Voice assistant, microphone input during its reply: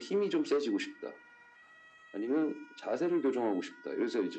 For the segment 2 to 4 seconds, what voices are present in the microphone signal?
echo only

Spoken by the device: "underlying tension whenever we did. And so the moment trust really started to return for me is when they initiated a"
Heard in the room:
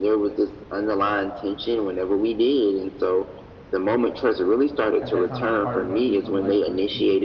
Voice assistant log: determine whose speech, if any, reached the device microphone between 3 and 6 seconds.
both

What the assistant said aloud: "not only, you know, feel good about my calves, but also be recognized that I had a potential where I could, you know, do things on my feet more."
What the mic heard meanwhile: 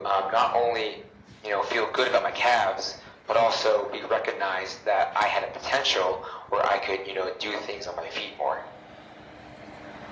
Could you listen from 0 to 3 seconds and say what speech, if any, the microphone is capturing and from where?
echo only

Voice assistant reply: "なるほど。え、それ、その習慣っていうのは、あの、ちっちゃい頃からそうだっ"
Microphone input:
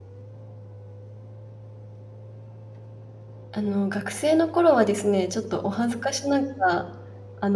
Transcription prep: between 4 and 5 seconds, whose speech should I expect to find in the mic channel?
user only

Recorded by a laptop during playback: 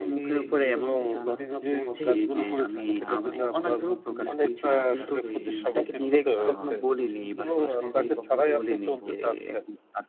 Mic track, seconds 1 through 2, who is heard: both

